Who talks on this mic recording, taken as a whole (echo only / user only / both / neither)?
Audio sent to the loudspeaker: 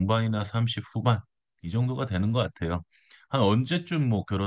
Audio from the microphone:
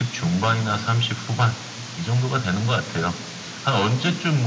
echo only